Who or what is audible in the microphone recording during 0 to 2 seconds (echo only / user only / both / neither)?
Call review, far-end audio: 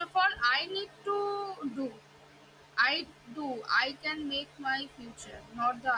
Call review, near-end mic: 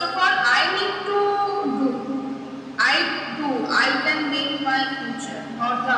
echo only